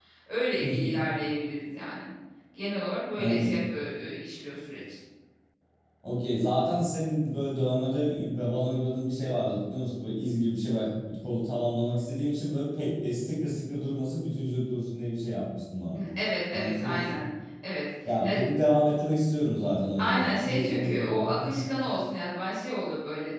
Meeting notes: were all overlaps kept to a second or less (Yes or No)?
No